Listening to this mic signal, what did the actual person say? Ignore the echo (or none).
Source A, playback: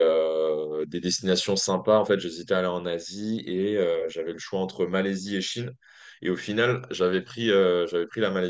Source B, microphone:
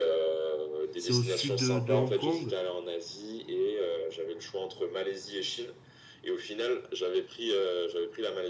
c'est au sud de de Hong Kong